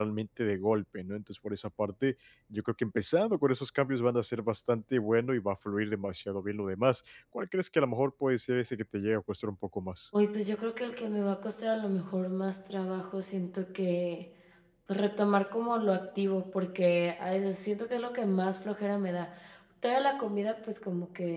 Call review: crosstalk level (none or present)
none